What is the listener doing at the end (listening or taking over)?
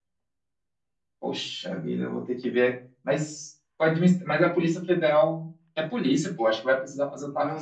taking over